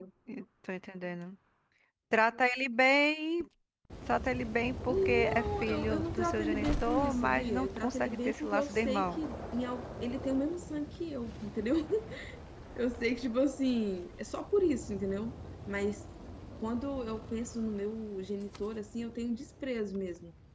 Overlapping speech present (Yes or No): Yes